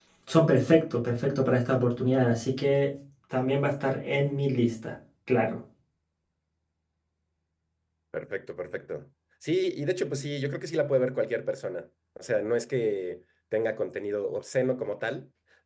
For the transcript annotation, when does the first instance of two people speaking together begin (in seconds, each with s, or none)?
none